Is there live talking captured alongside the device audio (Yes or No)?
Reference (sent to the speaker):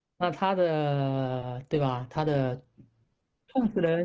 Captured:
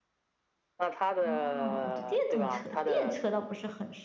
Yes